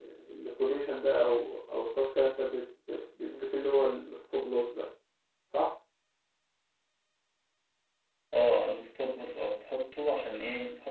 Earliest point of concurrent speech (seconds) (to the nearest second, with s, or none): none